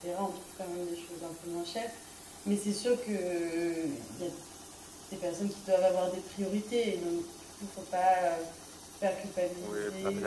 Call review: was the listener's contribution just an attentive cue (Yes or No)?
No